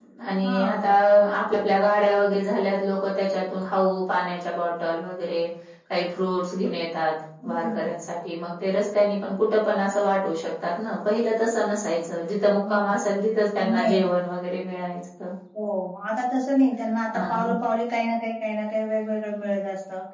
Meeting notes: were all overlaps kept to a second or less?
Yes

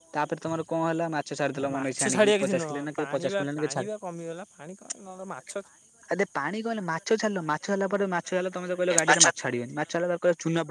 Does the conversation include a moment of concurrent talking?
Yes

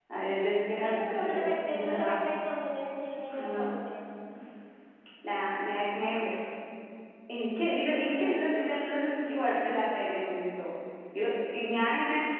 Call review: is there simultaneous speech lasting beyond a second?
Yes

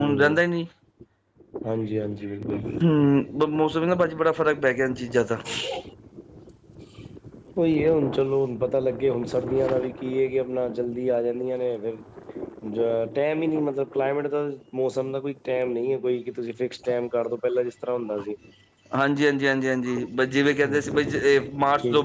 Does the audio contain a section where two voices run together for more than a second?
No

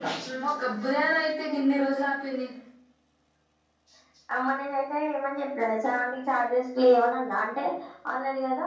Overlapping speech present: No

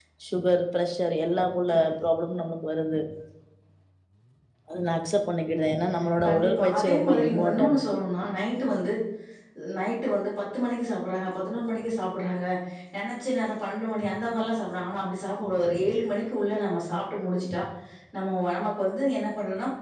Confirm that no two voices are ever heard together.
No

